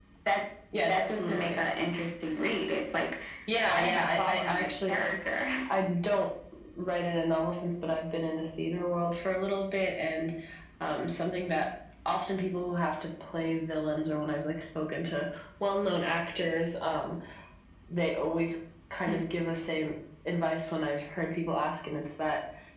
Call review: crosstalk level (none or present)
present